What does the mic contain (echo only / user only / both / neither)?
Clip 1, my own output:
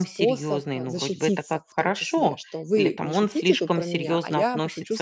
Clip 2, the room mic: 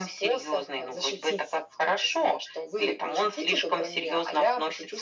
echo only